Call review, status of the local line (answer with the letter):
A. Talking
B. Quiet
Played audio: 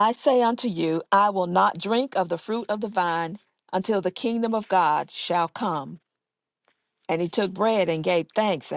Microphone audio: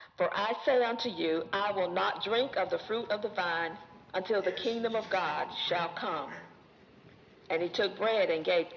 A